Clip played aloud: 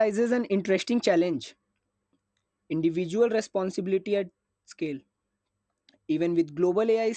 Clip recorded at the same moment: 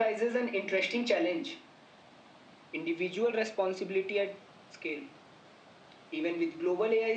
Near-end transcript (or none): none